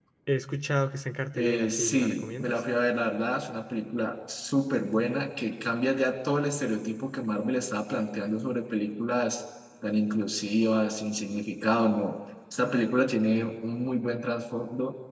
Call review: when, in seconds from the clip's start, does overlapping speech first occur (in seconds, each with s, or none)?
1.3 s